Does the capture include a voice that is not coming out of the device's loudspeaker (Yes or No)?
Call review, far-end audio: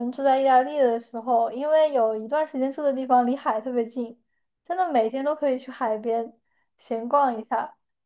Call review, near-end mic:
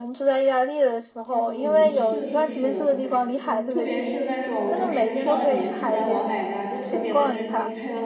Yes